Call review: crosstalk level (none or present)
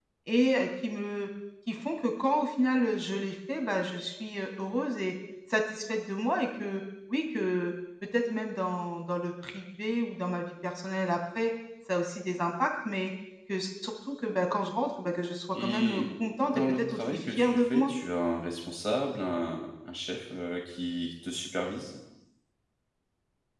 present